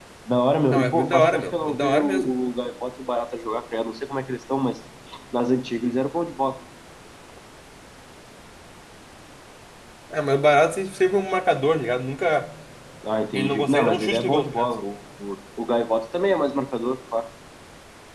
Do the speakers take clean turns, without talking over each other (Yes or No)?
No